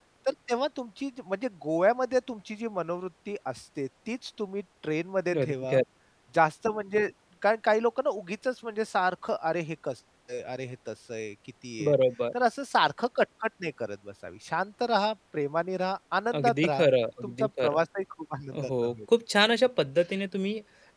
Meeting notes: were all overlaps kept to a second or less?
Yes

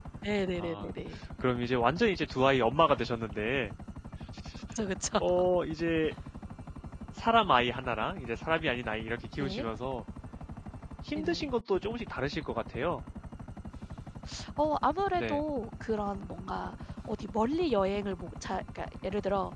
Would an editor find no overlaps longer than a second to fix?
Yes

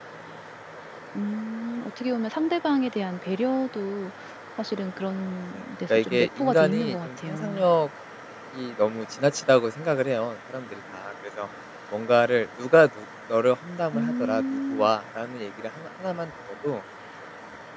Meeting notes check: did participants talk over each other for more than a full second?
Yes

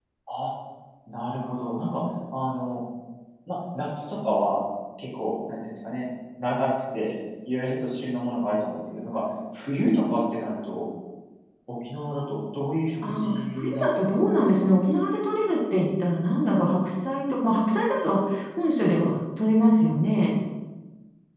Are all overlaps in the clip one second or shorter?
No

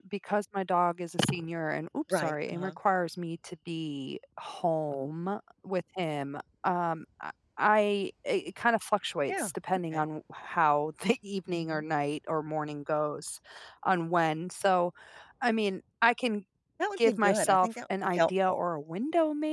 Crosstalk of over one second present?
Yes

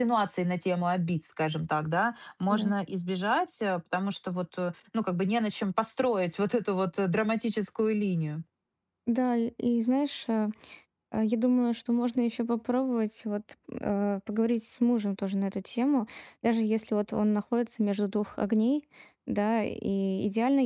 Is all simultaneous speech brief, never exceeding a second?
Yes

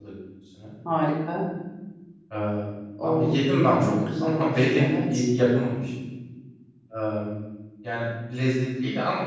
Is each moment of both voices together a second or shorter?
No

